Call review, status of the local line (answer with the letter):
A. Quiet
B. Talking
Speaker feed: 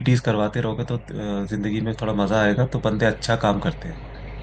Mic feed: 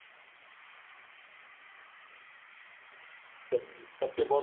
B